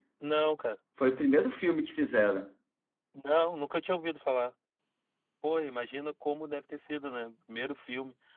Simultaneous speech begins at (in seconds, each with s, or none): none